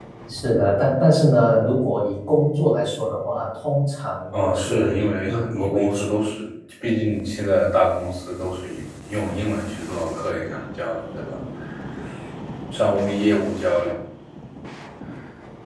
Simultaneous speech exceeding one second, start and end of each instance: 4.4-6.1

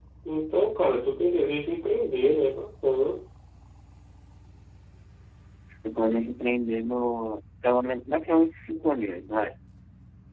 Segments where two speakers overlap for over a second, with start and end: none

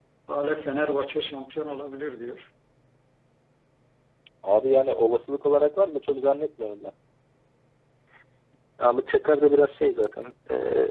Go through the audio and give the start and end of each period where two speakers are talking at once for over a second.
none

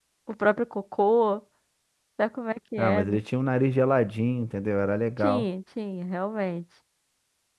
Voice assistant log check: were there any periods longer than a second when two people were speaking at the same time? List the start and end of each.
none

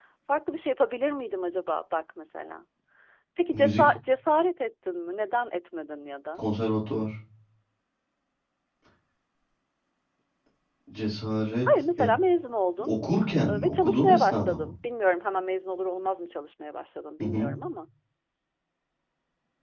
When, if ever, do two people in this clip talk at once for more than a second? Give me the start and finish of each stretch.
13.5-14.7

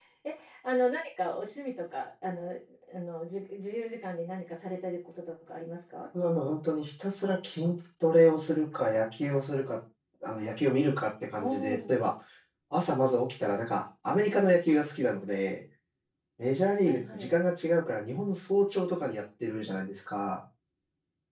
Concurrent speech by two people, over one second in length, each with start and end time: none

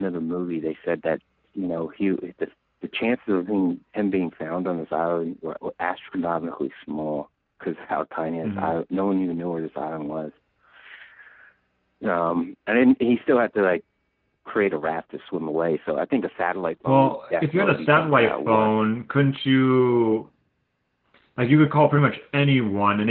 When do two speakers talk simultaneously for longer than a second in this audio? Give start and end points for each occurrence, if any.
16.9-18.7

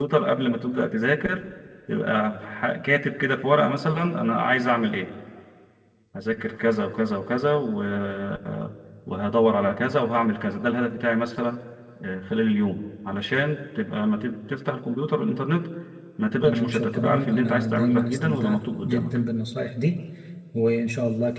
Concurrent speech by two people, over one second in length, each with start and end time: 16.4-19.2

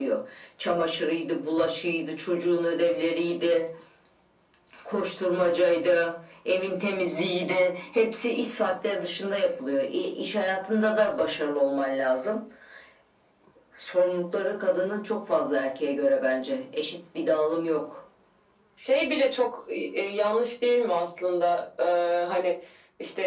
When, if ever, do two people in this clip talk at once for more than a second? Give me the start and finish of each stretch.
none

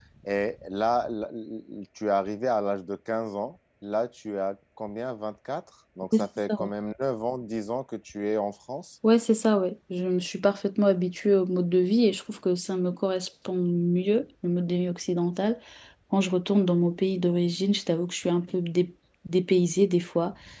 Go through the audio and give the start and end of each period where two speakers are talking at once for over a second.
none

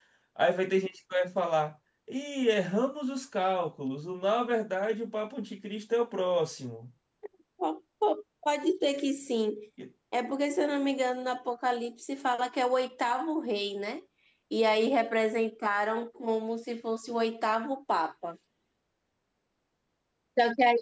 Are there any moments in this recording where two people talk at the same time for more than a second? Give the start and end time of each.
none

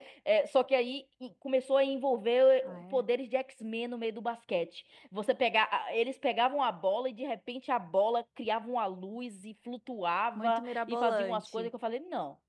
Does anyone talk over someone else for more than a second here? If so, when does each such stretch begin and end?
10.3-11.7

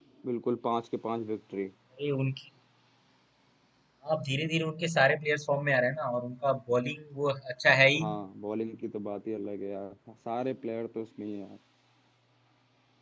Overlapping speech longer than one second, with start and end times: none

